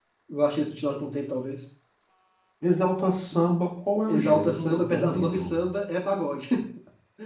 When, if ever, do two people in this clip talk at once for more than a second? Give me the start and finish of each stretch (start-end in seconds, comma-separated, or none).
4.0-5.6